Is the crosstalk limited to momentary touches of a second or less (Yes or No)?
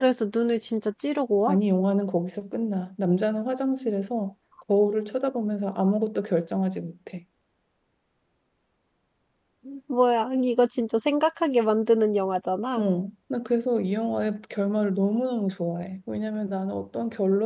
Yes